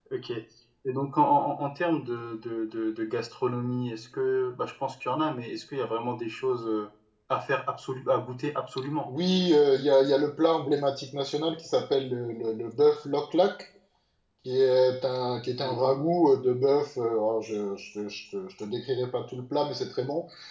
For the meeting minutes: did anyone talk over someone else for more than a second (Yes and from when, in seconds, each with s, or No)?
No